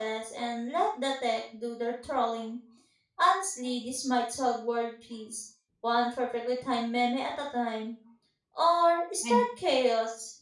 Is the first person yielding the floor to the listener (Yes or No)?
No